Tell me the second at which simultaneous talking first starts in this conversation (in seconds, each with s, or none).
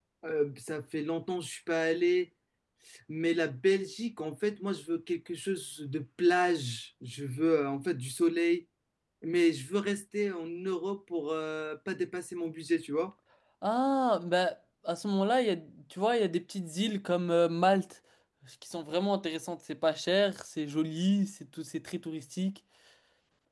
none